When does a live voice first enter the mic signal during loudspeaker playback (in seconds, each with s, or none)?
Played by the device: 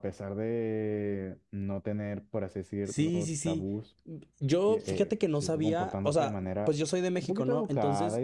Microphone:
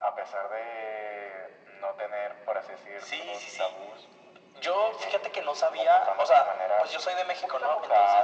none